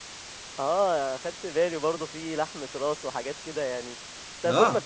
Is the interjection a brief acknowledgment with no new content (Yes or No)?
Yes